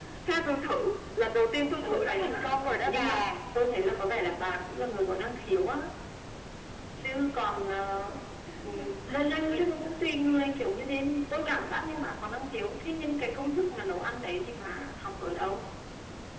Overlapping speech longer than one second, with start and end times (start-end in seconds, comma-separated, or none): 1.8-3.3